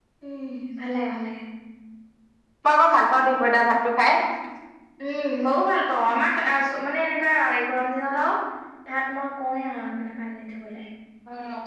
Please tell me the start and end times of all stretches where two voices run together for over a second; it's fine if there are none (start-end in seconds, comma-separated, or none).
none